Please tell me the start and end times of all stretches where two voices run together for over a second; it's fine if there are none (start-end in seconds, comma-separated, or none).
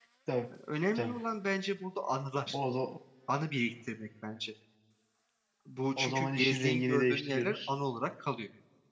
6.0-7.7